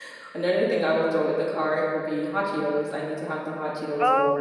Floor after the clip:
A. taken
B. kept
A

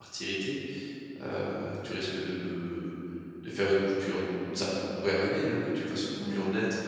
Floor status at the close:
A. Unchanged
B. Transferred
A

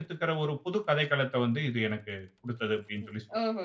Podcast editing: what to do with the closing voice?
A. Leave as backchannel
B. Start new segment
B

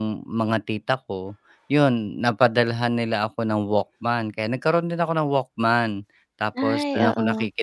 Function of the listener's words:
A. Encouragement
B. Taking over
A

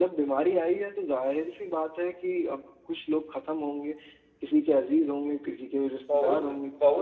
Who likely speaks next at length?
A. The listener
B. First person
A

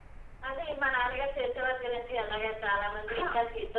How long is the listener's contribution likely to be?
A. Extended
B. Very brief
B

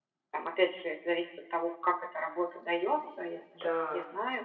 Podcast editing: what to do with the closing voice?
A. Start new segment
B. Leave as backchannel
B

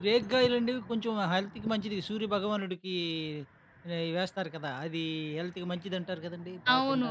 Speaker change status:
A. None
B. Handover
B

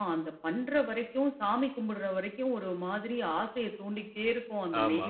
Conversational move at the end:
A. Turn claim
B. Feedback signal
B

